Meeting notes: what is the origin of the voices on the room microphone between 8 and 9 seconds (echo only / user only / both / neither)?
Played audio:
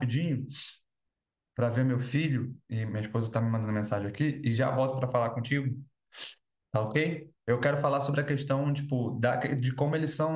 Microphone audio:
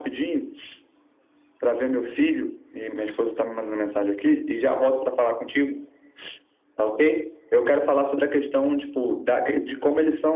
echo only